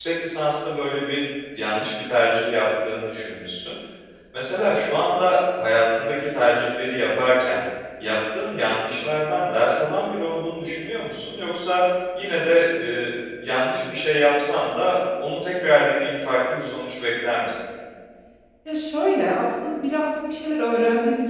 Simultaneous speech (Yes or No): No